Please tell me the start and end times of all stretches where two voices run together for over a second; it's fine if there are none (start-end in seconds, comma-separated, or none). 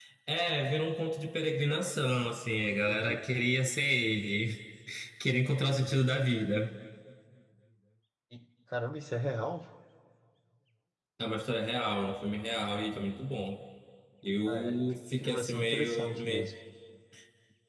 15.2-16.5